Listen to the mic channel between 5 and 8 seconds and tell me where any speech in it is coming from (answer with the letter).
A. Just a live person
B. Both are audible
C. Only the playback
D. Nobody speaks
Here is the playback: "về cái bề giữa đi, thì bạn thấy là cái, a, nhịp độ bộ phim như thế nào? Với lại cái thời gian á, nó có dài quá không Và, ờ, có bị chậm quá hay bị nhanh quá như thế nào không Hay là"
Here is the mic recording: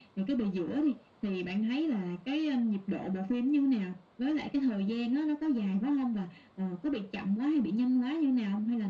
C